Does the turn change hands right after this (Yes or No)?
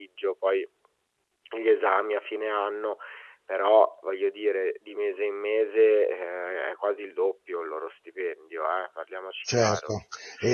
Yes